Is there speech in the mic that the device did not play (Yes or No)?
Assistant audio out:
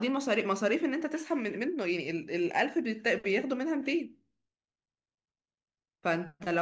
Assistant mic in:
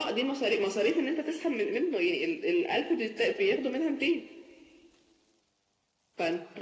No